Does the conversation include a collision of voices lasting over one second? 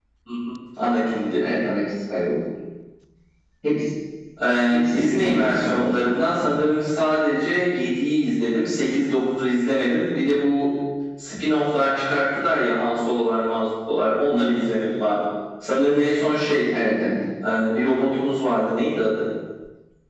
Yes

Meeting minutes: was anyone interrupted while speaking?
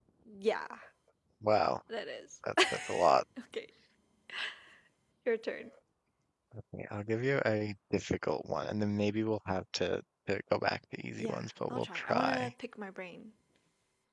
Yes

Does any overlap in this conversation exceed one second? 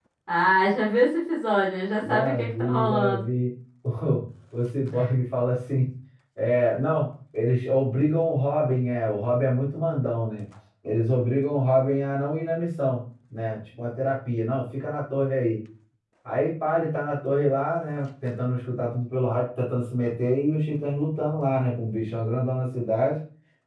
Yes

